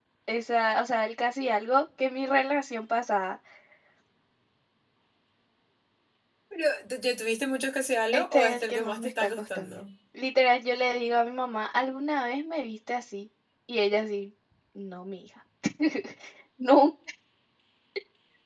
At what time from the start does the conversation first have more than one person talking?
8 s

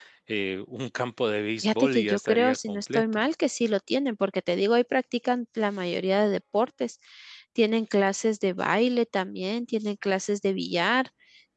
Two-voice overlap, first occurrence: 2 s

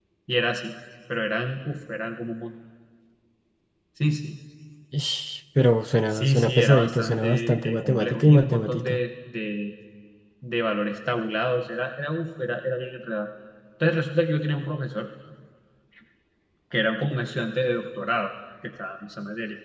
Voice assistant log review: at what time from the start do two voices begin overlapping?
6 s

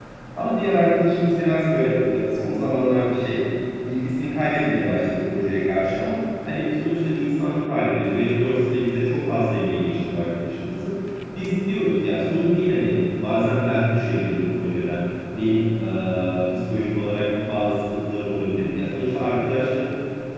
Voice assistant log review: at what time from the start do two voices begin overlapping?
none

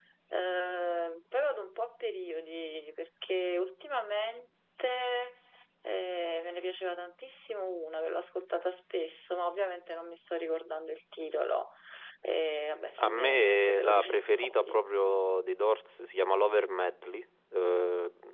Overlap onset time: 13 s

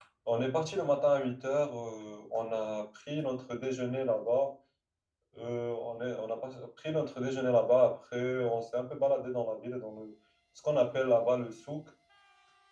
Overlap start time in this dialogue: none

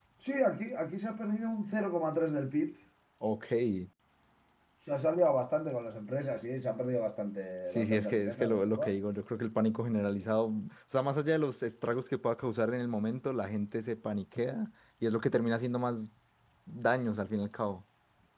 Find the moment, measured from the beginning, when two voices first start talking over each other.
8 s

